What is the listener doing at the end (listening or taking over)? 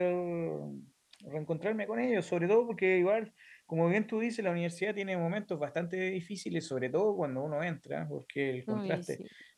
listening